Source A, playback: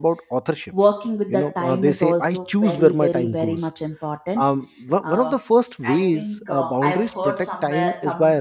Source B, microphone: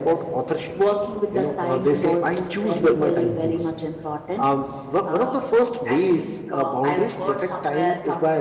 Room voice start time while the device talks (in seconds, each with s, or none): none